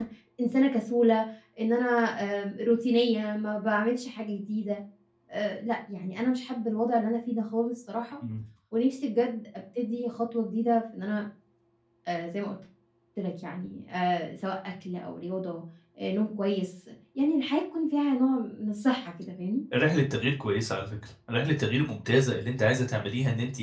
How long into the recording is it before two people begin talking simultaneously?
none

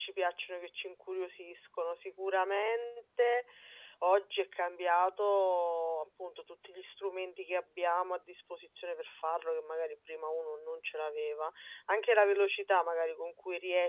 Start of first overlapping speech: none

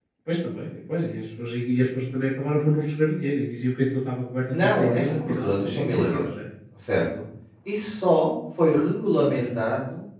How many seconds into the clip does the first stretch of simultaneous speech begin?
5 s

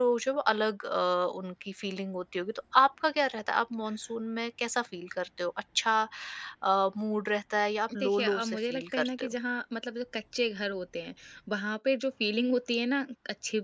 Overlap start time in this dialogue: 8 s

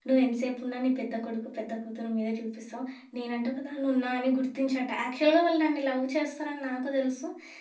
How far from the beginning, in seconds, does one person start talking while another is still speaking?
none

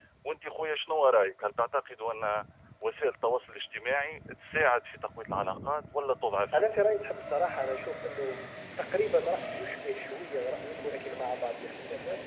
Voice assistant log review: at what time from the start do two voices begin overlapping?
none

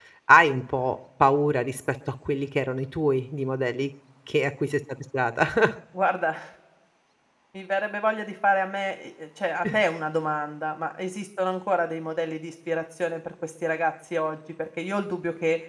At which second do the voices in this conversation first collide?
none

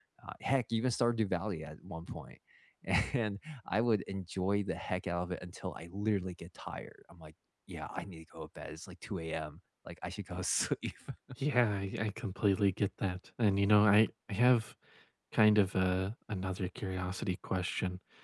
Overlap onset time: none

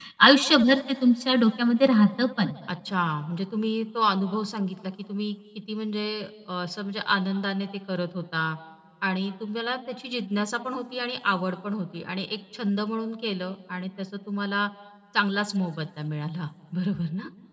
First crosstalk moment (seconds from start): none

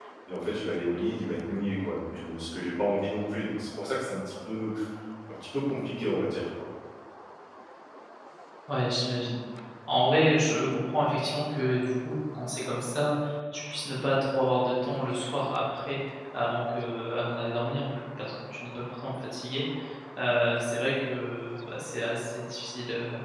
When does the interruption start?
none

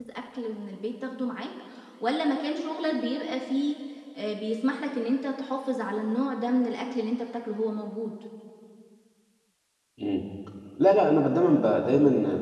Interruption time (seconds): none

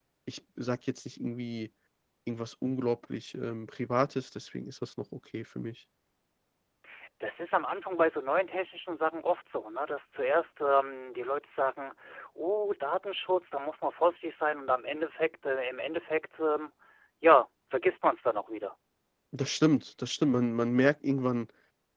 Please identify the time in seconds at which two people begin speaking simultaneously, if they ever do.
none

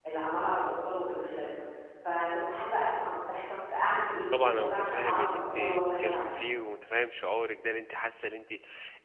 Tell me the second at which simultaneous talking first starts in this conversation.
4 s

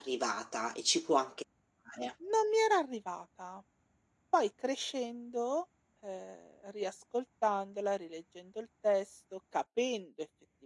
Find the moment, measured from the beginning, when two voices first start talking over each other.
none

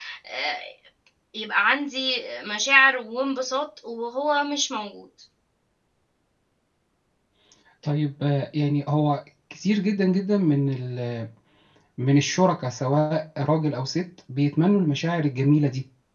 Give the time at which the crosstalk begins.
none

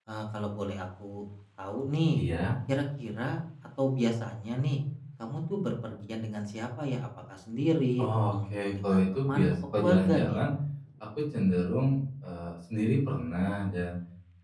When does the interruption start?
8 s

